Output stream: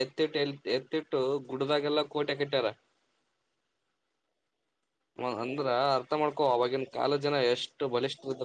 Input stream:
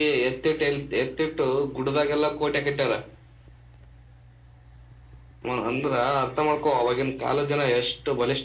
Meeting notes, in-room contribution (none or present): none